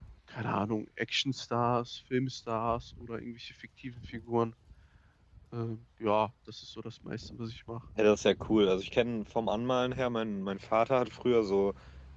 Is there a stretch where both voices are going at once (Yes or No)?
No